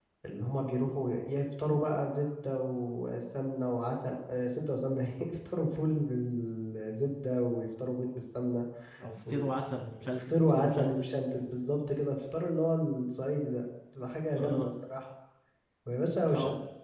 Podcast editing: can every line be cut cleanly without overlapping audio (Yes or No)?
No